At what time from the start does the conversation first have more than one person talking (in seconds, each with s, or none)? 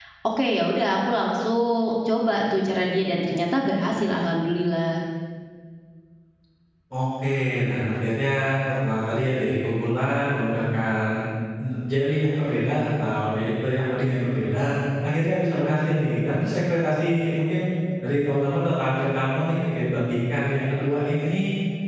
none